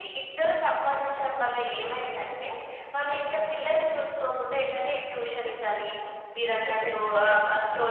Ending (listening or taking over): listening